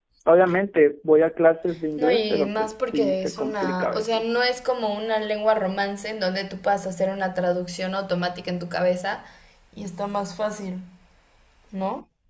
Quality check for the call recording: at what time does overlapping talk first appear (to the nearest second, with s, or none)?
2 s